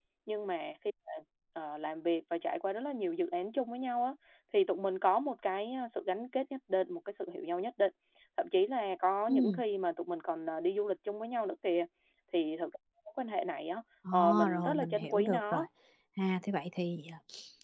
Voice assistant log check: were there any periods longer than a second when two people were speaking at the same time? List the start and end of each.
14.1-15.6

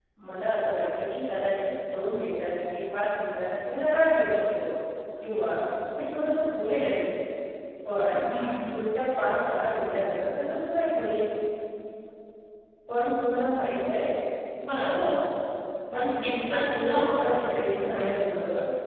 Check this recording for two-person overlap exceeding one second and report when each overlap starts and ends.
15.9-18.0

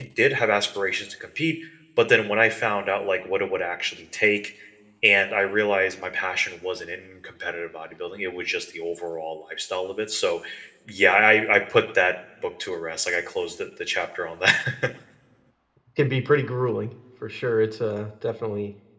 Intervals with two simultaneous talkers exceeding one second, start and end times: none

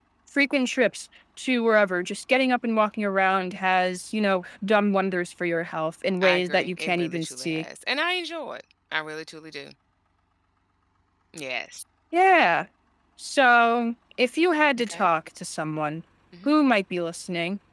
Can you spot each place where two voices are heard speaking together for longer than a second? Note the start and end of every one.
6.2-7.6

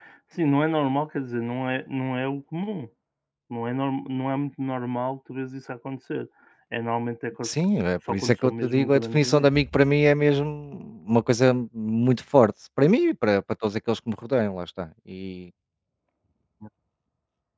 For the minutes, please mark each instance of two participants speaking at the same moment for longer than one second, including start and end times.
8.1-9.5

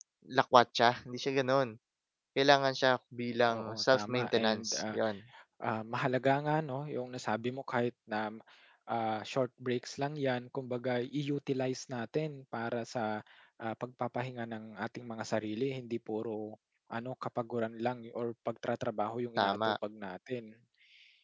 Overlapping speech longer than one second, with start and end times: 3.5-5.0

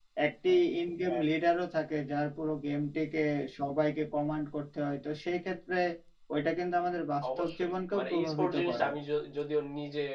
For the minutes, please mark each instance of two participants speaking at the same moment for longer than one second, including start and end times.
7.4-8.9

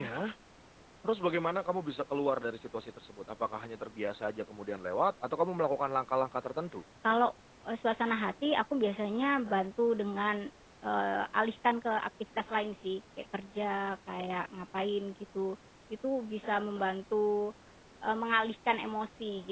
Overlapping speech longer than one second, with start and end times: none

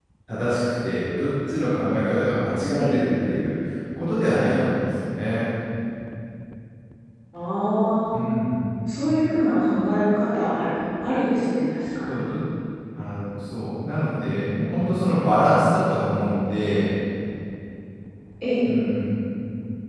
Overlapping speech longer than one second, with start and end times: none

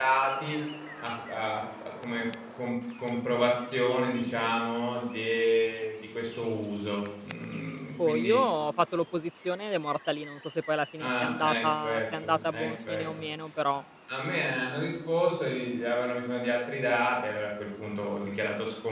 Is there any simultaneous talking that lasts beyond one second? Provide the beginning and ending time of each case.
11.0-13.1

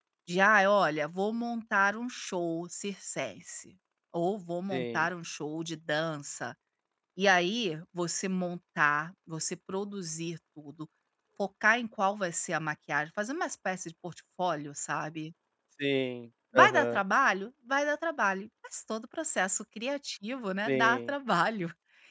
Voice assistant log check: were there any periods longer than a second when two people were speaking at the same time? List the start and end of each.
none

